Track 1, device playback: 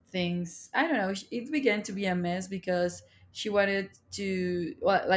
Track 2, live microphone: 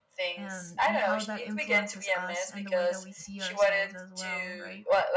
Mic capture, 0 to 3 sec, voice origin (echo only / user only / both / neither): both